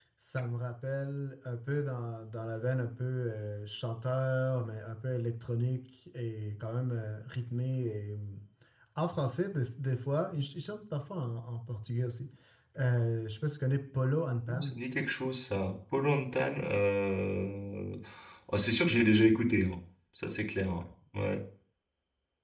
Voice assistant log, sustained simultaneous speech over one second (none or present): none